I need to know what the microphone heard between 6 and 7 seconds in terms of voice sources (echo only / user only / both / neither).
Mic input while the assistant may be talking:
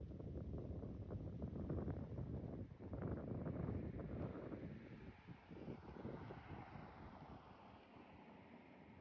neither